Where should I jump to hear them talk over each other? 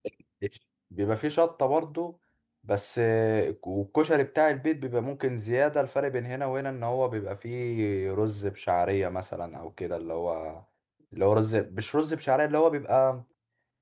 none

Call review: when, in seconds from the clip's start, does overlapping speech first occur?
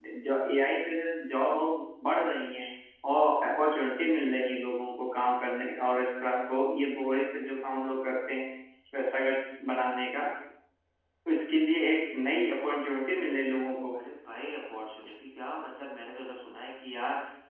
none

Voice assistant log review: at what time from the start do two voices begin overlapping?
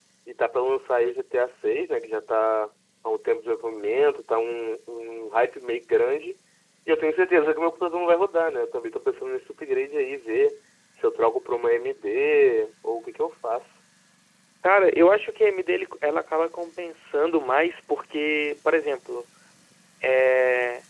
none

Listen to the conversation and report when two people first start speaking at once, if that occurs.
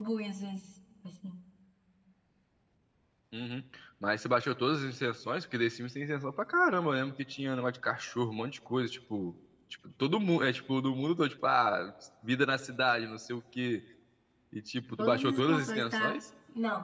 15 s

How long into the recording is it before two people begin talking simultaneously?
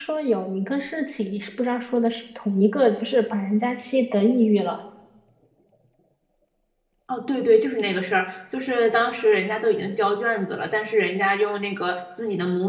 none

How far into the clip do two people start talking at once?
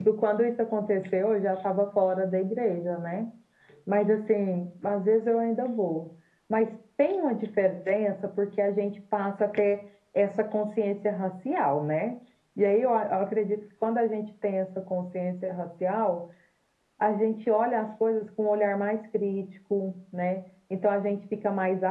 none

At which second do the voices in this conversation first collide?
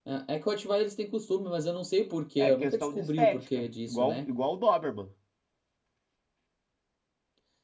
2 s

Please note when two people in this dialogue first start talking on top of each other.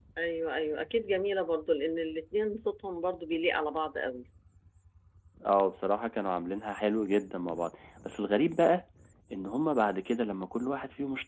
none

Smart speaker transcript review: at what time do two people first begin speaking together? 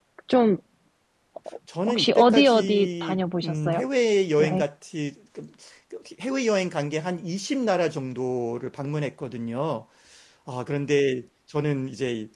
2 s

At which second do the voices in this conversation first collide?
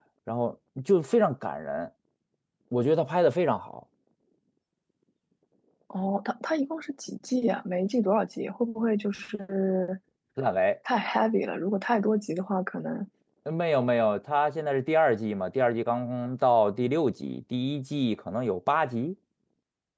none

